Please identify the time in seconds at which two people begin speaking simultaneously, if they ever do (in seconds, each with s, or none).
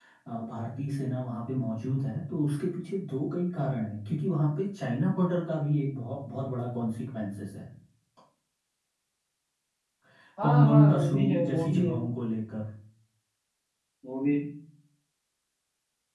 10.4 s